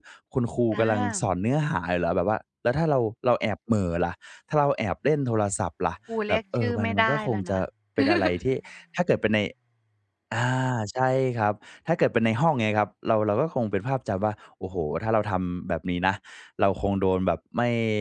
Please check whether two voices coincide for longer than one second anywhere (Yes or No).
Yes